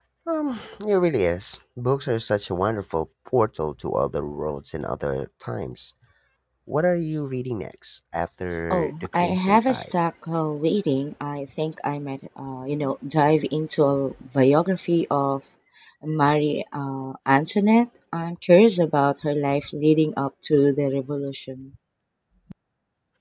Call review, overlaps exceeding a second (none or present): present